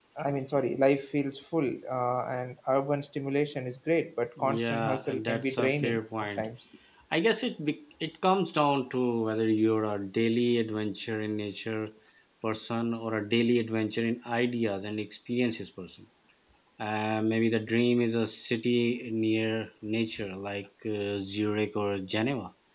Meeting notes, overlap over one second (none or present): present